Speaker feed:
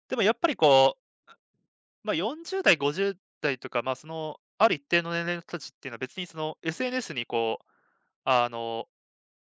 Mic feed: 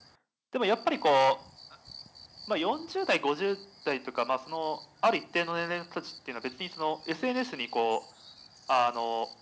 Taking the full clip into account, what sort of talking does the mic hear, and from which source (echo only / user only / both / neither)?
echo only